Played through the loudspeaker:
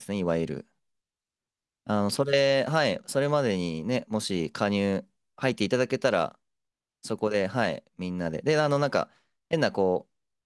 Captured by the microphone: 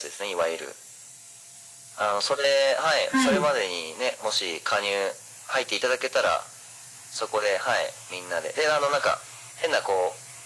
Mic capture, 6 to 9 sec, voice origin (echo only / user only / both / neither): echo only